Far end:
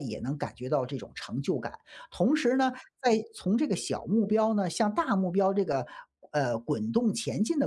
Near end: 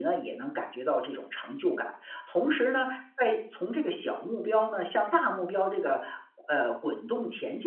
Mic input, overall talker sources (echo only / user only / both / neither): echo only